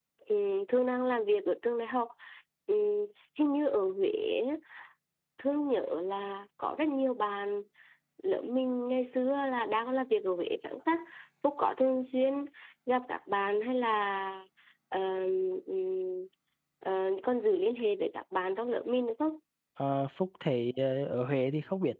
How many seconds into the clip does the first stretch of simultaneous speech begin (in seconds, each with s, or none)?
none